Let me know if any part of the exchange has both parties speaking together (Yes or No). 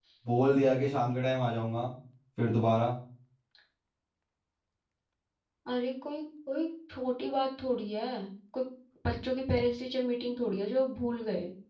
No